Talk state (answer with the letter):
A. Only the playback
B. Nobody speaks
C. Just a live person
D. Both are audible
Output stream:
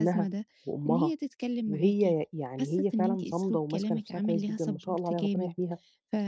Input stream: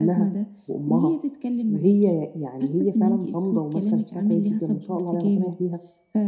A